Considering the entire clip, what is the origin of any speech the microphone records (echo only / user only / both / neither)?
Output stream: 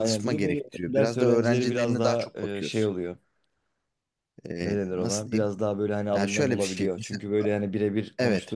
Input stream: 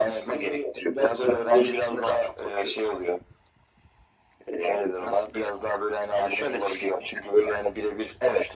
echo only